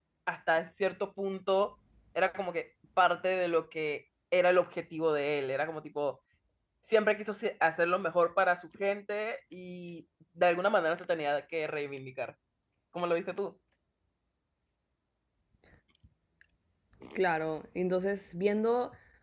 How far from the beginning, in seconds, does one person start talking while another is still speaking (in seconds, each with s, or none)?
none